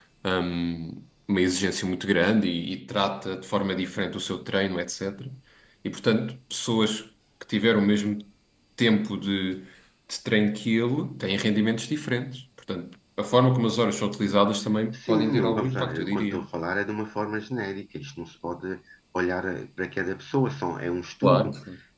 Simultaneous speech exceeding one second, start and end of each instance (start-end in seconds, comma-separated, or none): 14.9-16.5